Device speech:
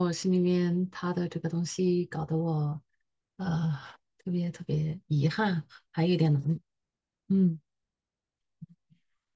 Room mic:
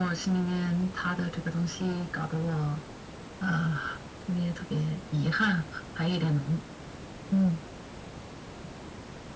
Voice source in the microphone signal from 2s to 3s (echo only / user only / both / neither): echo only